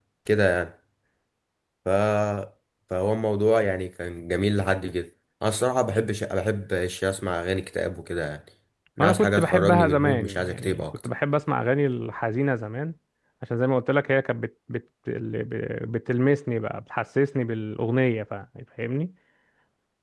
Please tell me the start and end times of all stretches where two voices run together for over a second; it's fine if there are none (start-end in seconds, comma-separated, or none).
9.0-11.1